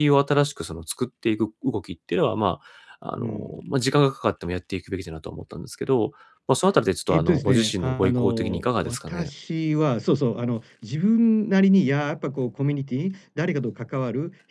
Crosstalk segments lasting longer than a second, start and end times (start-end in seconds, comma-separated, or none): 7.1-9.3